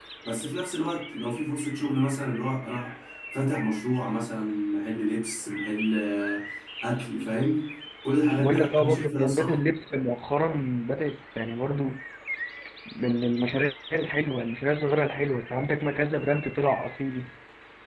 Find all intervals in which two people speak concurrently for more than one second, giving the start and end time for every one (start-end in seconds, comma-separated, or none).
8.4-9.6